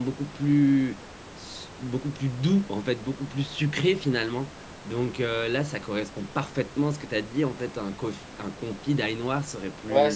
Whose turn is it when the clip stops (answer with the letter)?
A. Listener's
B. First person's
A